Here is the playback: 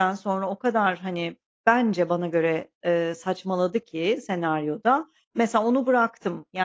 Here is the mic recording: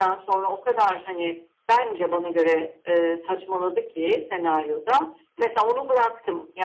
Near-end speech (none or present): none